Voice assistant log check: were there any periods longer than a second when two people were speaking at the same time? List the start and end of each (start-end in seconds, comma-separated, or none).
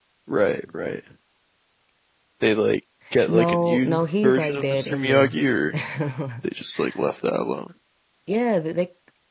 3.3-5.4